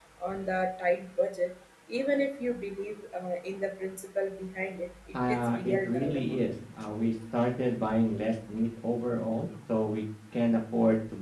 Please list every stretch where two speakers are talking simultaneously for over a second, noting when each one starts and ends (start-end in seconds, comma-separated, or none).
5.1-6.3